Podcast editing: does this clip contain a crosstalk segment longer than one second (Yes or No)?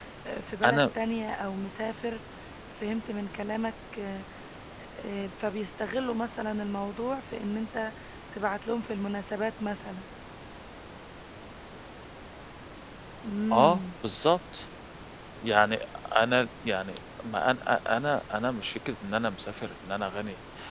No